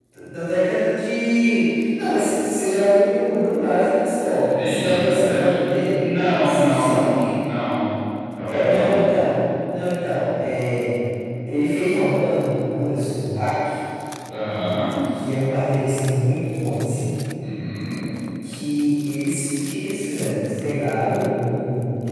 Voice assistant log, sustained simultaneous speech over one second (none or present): present